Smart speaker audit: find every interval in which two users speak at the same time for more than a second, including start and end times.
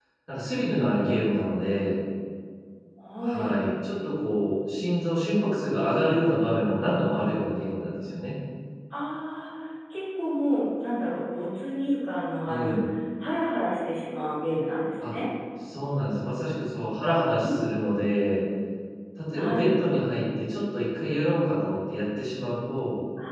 none

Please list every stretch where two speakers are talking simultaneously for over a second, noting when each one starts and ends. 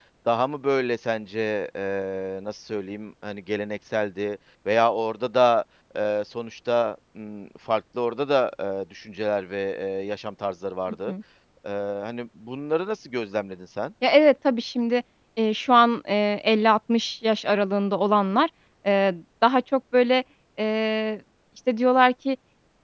none

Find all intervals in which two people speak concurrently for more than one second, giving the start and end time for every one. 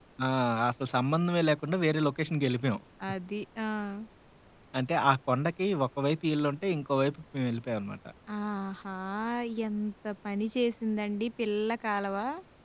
none

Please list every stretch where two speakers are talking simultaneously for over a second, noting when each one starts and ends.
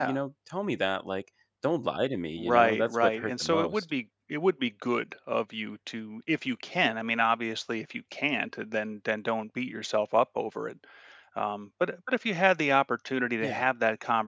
2.4-3.8

